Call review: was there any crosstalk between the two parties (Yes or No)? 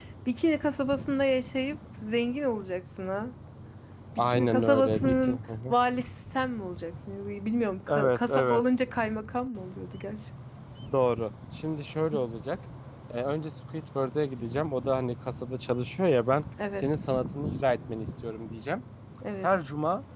Yes